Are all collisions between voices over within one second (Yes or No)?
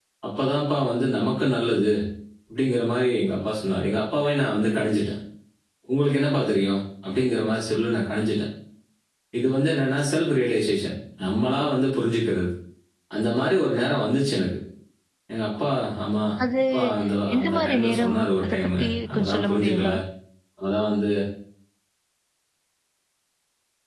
No